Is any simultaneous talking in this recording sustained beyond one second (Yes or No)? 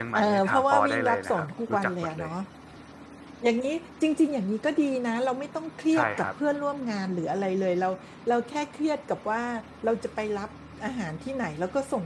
Yes